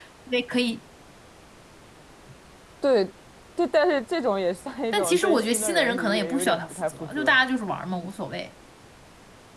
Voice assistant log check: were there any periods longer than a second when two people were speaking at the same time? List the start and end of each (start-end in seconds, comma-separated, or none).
4.9-7.4